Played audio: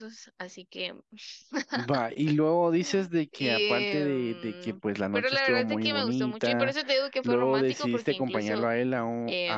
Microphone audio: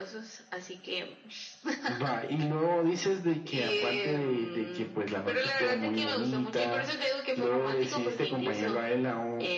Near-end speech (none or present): none